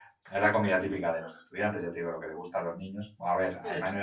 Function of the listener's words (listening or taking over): listening